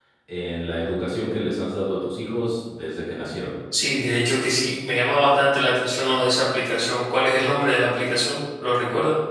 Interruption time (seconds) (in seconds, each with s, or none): none